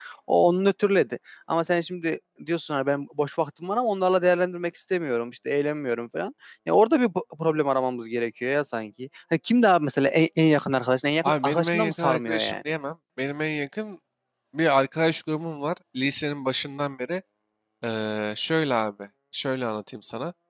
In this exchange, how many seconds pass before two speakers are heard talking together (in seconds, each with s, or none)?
11.2 s